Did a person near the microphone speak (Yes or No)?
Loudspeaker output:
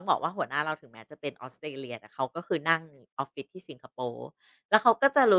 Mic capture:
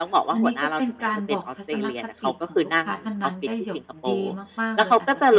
Yes